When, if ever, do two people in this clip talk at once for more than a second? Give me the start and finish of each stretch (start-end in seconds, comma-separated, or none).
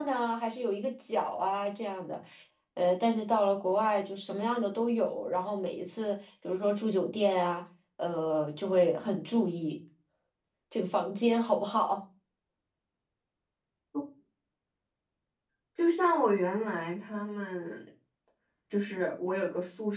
none